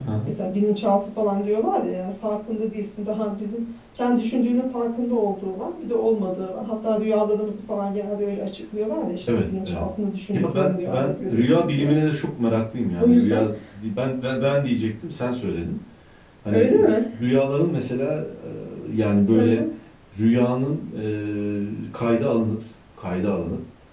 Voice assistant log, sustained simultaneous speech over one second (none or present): present